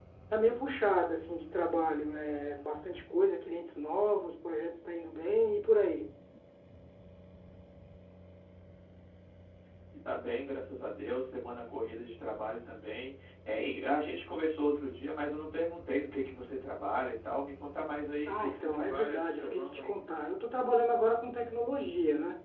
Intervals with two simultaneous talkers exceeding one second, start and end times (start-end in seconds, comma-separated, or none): 18.3-19.9